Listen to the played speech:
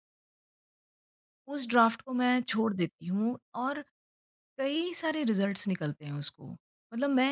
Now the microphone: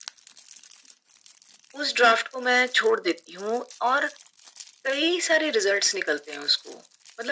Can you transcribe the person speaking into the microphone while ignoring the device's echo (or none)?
none